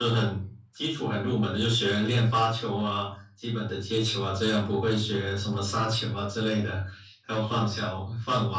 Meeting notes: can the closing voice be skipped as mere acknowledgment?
Yes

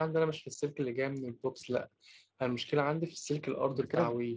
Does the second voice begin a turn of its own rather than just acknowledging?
Yes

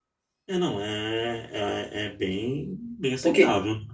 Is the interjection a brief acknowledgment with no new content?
No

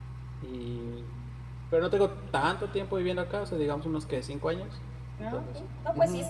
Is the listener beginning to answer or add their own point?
Yes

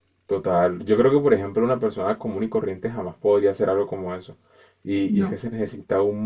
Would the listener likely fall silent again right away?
Yes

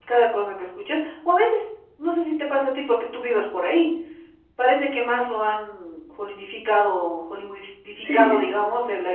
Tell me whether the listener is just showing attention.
Yes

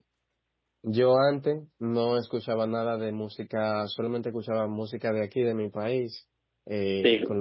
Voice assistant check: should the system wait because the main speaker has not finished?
Yes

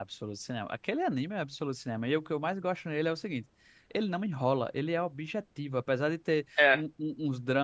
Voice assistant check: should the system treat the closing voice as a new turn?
No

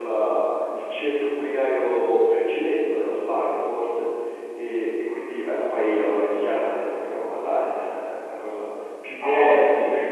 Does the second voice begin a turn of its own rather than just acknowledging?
No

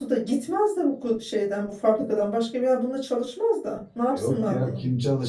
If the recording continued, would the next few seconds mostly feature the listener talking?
Yes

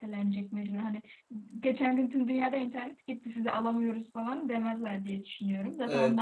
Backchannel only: No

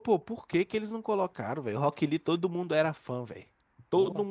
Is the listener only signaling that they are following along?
No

